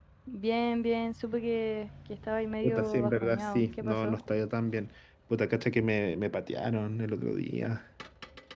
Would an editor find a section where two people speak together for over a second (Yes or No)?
Yes